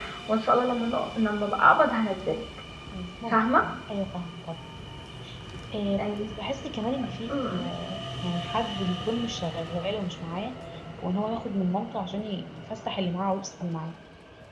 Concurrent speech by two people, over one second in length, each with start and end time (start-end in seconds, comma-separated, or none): none